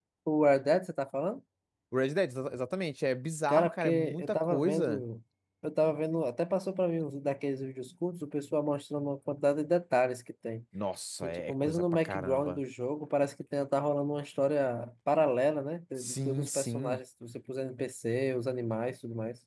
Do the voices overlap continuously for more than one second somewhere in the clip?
Yes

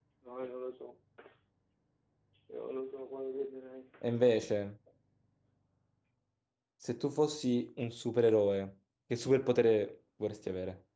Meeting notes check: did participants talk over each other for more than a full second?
No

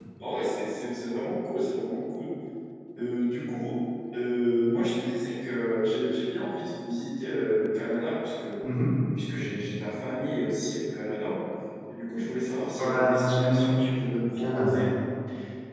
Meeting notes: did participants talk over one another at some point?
Yes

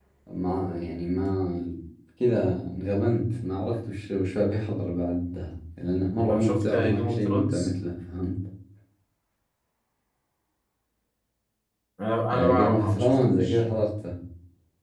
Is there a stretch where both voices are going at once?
Yes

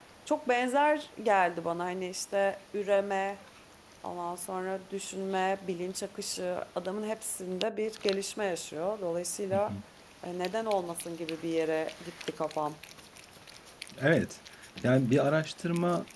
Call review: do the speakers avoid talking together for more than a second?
Yes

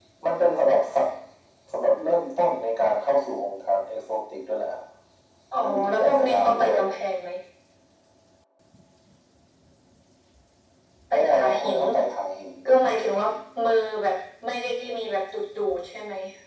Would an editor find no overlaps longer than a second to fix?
No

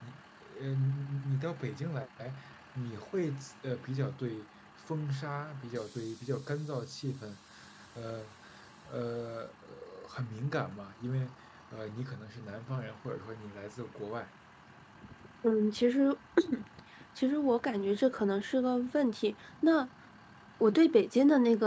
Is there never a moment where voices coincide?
Yes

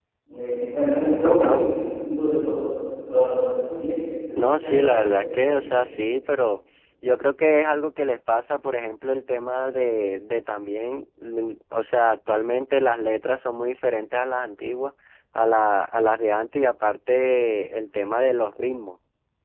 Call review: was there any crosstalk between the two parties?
Yes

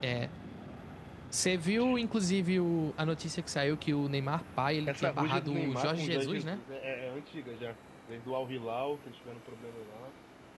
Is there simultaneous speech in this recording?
Yes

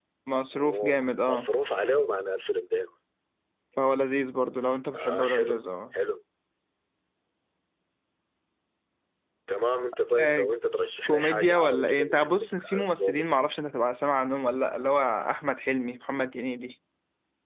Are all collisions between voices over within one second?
No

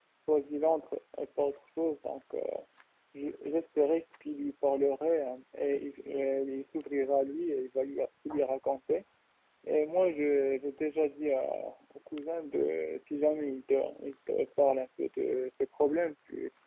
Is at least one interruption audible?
No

